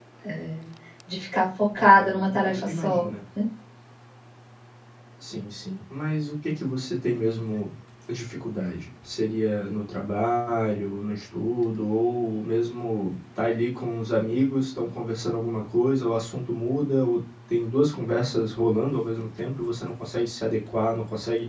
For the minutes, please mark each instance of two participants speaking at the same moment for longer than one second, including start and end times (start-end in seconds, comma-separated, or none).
1.8-3.1